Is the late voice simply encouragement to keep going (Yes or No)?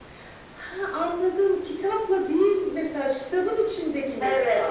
No